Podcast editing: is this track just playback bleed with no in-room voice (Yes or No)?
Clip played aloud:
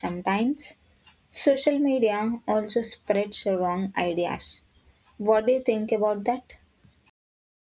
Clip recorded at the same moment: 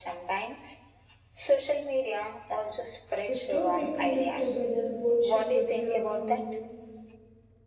No